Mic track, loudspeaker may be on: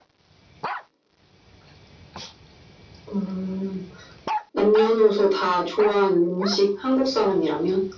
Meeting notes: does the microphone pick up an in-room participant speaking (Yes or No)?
No